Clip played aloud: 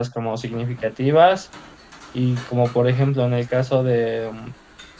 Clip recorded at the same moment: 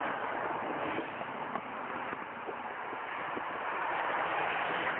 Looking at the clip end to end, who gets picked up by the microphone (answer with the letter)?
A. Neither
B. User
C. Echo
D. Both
A